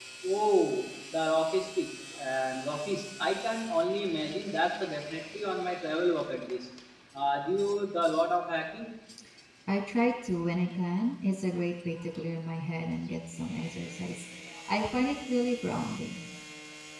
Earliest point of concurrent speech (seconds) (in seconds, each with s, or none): none